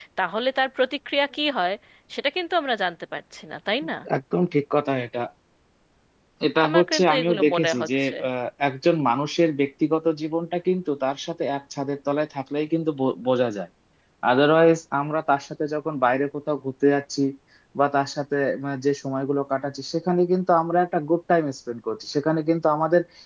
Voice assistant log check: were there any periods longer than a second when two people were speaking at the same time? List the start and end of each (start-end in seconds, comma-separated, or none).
6.6-8.1